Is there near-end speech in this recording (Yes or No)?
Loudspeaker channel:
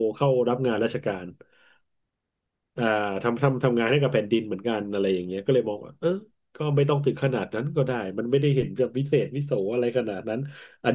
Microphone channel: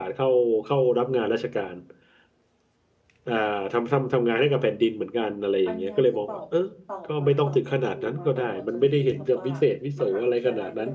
Yes